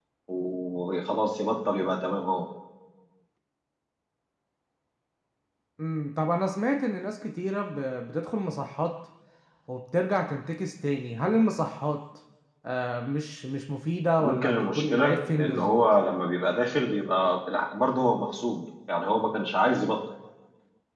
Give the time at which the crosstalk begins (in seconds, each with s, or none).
14.2 s